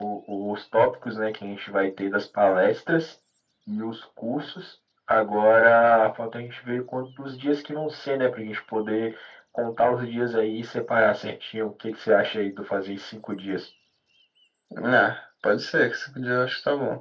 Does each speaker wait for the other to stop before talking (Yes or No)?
Yes